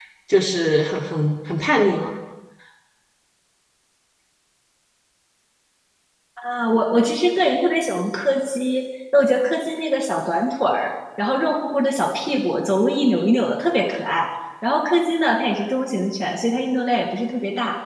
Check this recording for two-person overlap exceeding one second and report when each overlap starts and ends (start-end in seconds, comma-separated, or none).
none